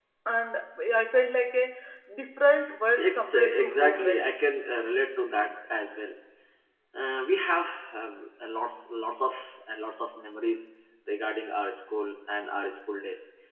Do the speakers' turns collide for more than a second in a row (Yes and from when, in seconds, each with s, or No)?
Yes, from 3.0 s